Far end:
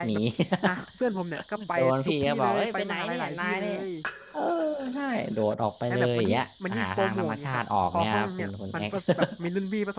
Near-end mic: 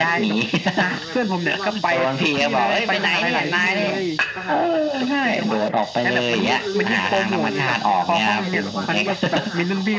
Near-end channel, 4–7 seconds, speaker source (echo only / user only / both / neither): both